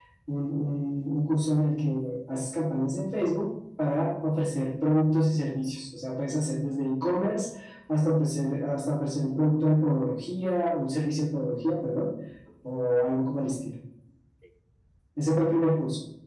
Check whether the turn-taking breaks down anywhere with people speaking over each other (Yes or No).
No